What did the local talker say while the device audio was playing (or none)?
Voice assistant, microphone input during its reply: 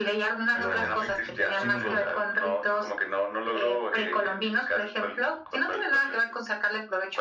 los, l- sí, no, lo,